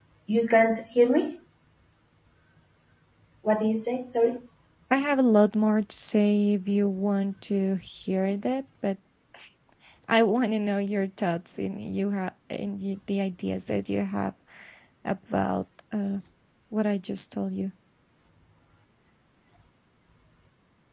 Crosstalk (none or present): none